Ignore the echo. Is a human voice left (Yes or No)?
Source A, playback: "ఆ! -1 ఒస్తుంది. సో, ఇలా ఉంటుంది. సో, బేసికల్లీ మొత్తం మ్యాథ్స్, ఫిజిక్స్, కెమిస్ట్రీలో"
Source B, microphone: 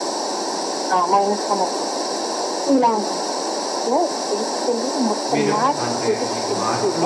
Yes